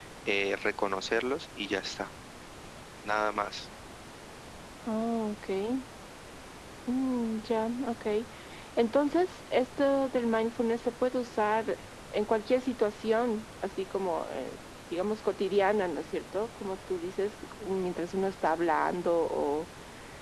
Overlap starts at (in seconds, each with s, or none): none